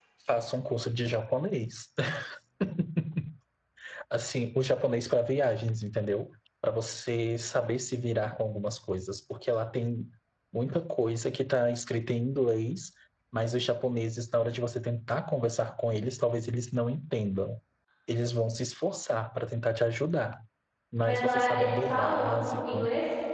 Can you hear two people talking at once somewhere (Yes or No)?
Yes